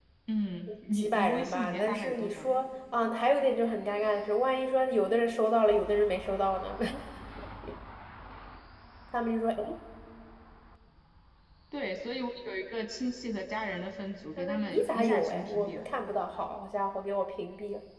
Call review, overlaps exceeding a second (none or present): present